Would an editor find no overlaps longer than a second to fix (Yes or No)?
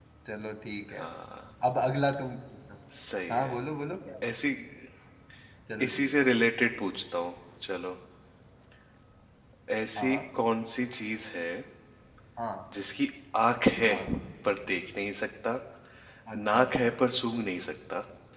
Yes